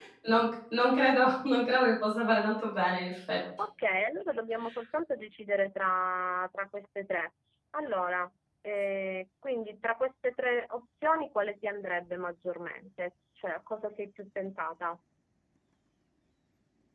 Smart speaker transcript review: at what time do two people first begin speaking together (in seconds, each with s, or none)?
none